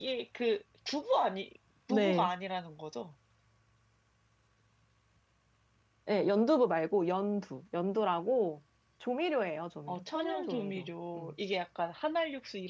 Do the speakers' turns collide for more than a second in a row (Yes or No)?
Yes